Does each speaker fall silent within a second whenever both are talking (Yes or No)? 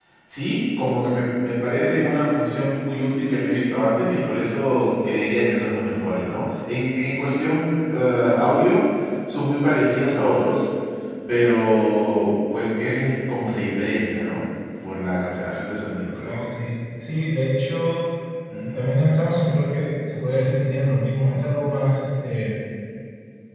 Yes